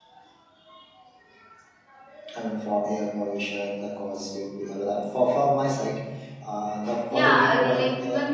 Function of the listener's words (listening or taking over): taking over